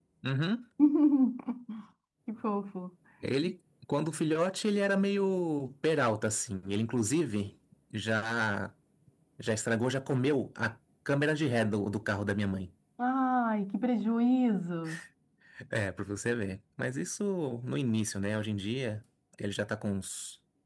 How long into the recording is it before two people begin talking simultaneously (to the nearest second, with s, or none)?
none